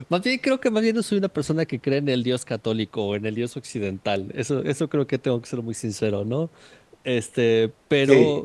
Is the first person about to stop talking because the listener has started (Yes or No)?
No